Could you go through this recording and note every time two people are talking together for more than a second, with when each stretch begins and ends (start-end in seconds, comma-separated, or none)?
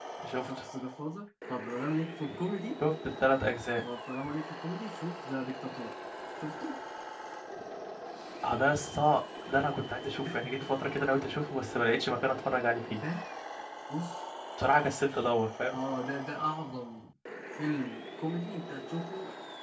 none